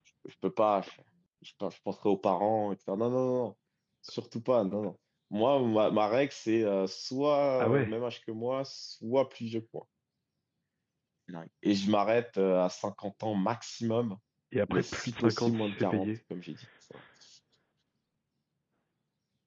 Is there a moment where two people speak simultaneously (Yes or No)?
Yes